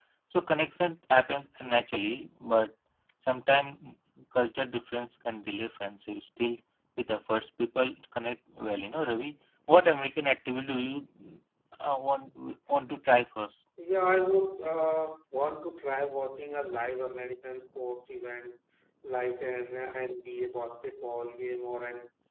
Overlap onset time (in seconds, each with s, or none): none